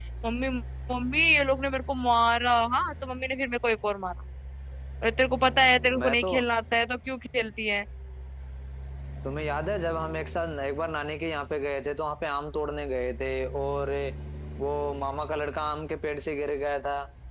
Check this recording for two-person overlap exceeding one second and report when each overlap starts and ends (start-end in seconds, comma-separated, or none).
none